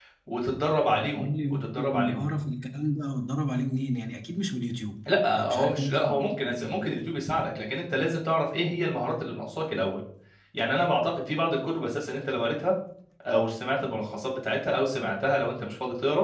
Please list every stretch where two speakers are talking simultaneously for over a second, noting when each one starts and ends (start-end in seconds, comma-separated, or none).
1.0-2.3, 5.3-6.8